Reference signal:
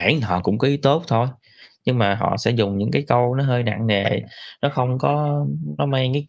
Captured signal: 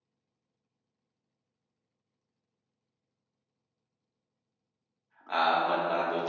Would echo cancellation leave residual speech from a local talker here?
Yes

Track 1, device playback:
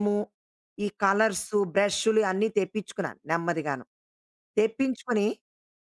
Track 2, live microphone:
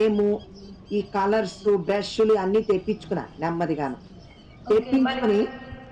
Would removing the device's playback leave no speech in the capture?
No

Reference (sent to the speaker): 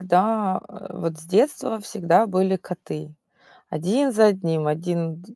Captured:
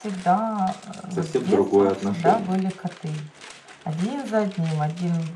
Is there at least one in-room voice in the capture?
Yes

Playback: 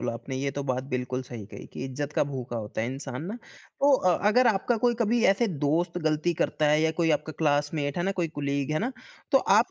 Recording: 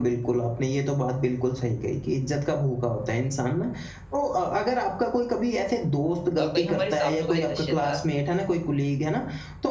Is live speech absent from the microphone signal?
No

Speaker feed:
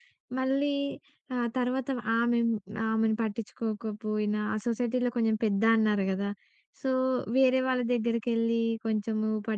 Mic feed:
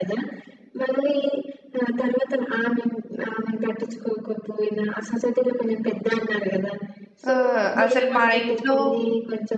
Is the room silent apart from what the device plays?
No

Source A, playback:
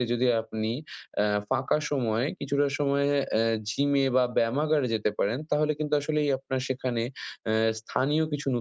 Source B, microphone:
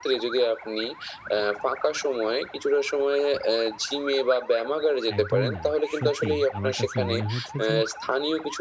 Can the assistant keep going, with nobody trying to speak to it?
No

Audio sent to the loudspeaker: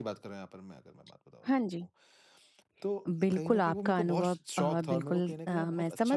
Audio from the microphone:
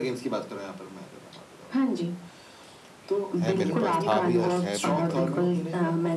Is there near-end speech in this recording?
Yes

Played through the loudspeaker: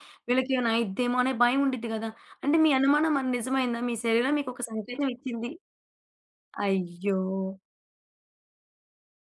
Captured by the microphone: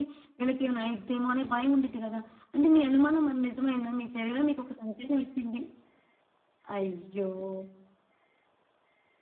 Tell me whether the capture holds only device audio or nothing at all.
Yes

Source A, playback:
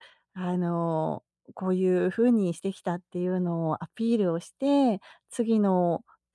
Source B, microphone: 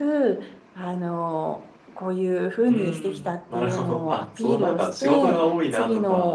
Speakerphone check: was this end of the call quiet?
No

